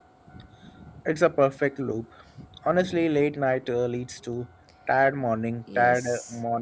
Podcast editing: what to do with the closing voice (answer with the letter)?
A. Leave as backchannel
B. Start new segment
B